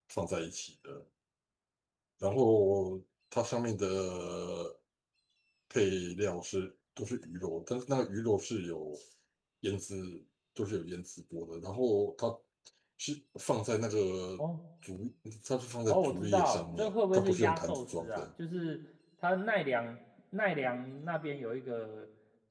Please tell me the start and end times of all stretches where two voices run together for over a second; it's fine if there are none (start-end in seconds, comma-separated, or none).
15.9-18.2